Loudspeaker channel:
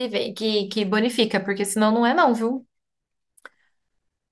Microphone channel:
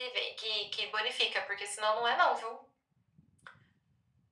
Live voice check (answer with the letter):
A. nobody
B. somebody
A